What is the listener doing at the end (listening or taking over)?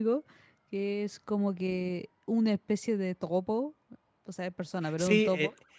taking over